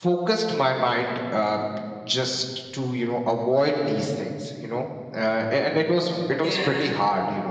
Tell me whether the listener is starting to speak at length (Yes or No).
No